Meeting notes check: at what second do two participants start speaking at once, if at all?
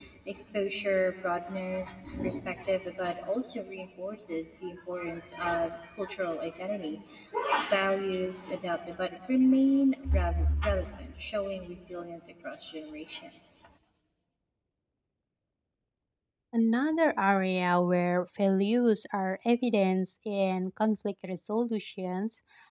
none

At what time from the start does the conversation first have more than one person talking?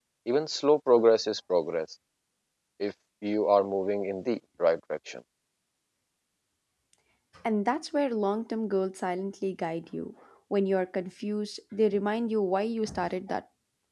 none

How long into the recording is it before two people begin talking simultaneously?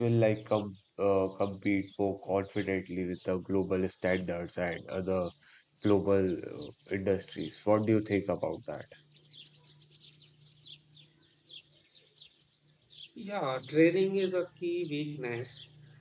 none

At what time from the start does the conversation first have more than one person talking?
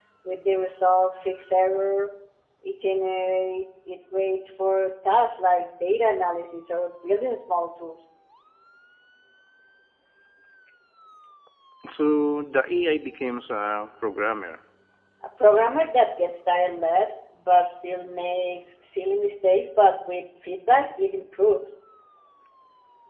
none

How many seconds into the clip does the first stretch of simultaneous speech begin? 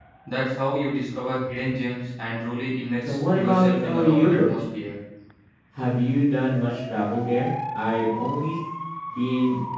3 s

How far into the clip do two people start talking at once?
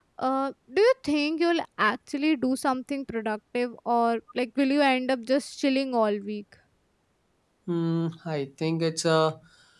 none

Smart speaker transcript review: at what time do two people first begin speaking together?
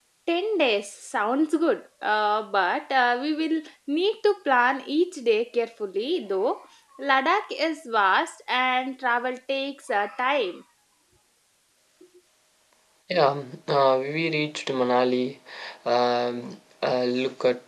none

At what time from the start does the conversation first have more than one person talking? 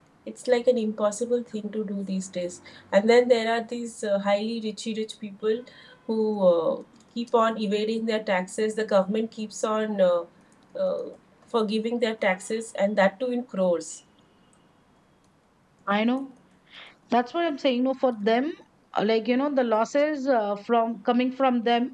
none

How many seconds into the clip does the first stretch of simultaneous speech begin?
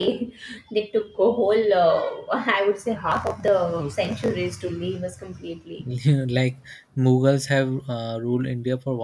none

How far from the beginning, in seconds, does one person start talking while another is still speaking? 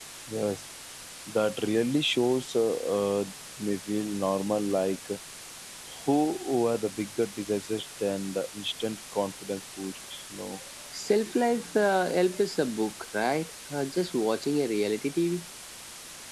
none

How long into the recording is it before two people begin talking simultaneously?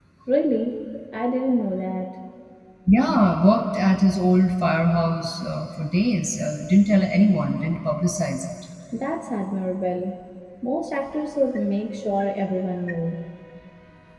none

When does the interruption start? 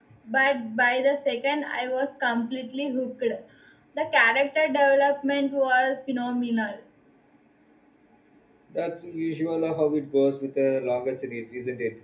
none

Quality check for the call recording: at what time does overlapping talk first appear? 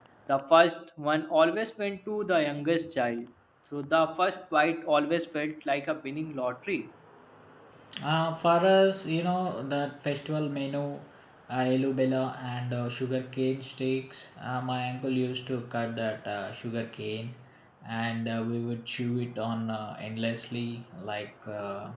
none

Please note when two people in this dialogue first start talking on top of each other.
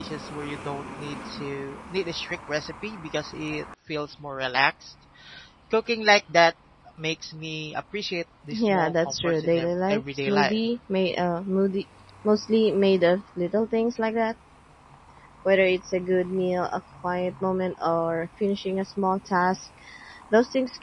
9 s

